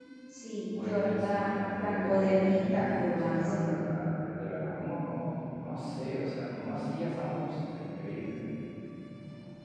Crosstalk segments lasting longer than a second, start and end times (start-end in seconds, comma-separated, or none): 0.8-3.8